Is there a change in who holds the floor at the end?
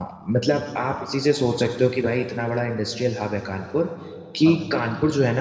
No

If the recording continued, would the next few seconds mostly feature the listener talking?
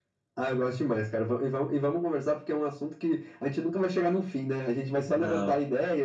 No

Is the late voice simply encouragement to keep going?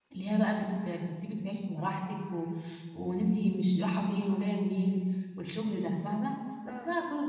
Yes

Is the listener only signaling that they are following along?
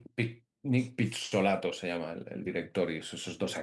Yes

